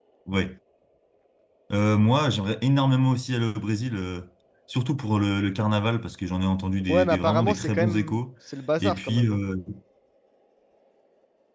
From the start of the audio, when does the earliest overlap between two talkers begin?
7 s

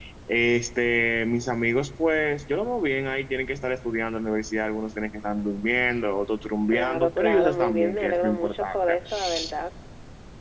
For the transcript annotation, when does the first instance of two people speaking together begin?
7 s

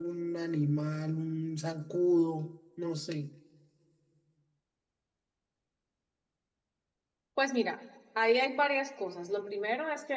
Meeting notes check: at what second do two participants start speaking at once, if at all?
none

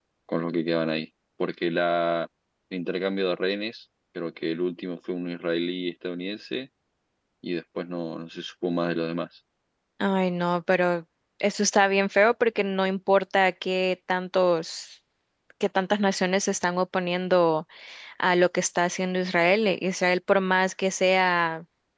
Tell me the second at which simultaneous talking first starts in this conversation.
none

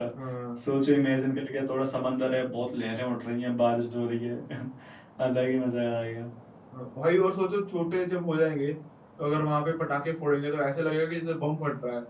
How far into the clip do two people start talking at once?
none

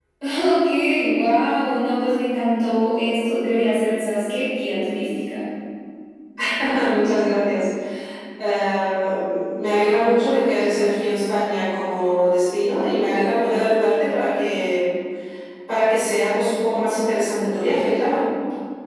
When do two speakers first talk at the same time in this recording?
none

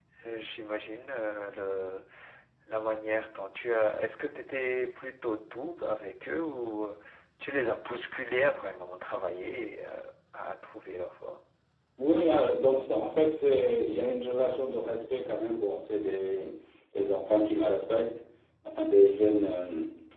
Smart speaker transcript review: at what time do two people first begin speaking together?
none

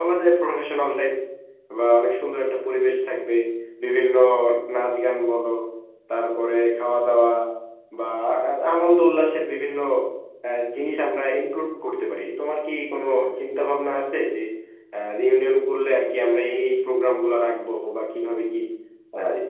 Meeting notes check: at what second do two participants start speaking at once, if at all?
none

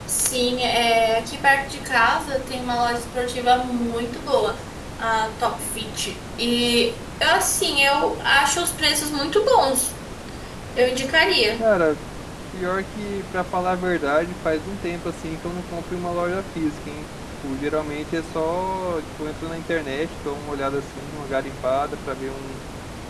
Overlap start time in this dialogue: none

